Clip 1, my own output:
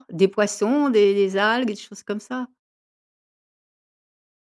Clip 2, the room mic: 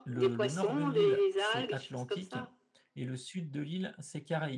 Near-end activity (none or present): present